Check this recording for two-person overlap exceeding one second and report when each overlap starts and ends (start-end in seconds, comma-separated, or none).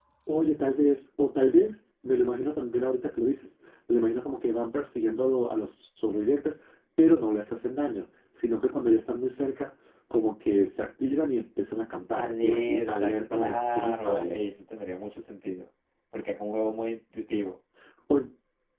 12.2-14.5